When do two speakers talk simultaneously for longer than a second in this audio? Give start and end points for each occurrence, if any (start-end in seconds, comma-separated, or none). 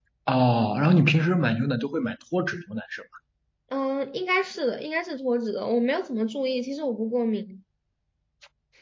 none